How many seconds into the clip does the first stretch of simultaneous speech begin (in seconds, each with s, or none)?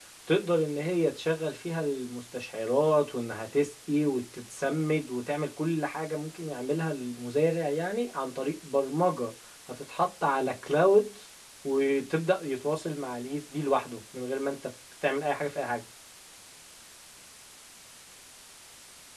none